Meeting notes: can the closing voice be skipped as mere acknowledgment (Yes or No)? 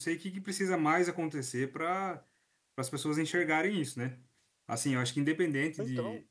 Yes